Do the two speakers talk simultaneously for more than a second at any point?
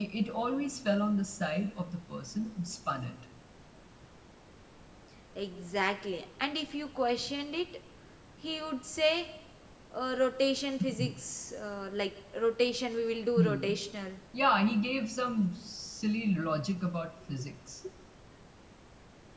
No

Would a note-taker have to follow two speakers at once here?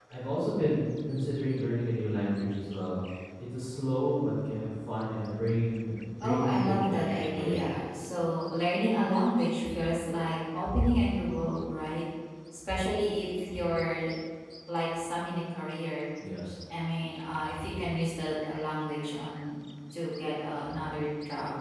Yes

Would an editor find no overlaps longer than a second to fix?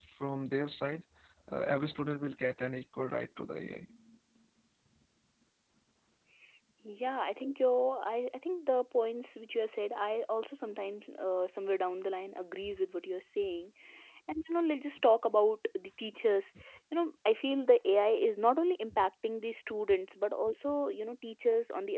Yes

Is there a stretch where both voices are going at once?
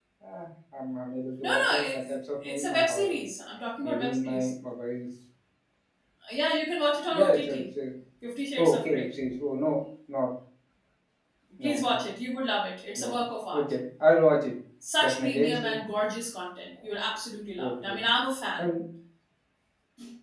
Yes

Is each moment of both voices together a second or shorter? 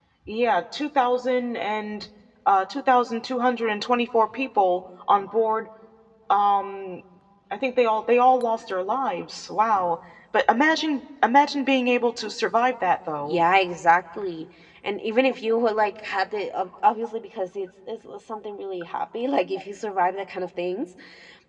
Yes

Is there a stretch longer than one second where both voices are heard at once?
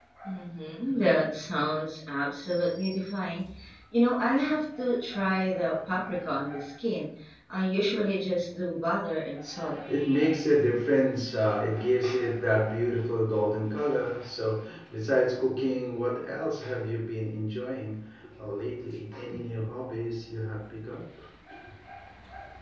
No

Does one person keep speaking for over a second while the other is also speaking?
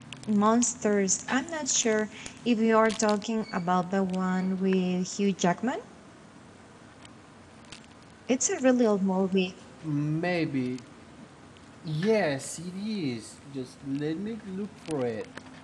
No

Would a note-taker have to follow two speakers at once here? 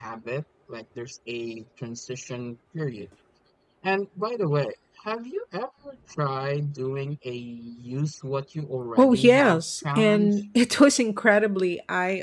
Yes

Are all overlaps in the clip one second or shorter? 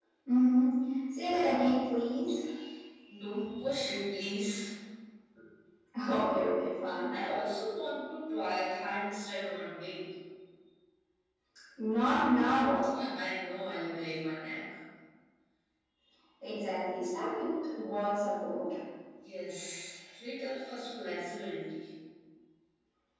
Yes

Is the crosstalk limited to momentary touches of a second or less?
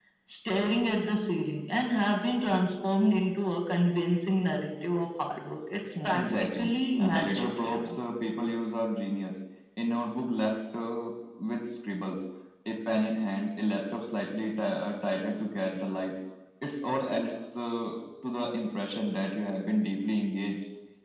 No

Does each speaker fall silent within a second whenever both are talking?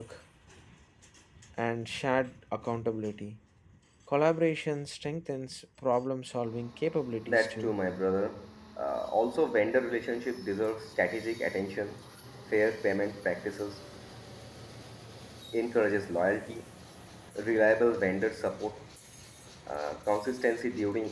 Yes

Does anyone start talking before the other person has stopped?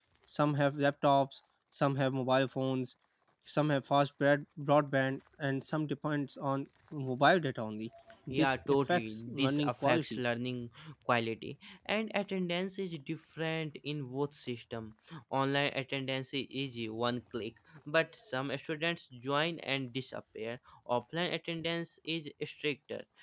Yes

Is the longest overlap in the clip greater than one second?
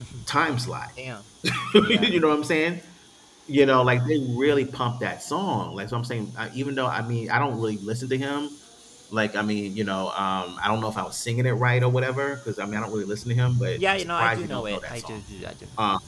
Yes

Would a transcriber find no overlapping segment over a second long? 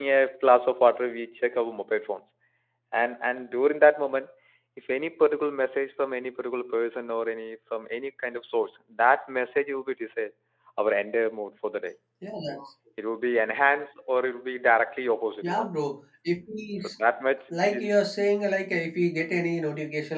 Yes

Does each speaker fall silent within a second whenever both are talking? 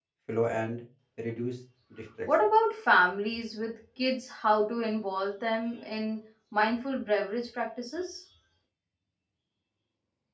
Yes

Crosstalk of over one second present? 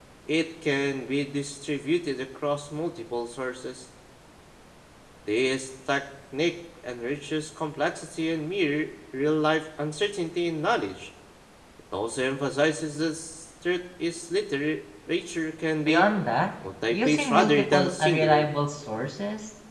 Yes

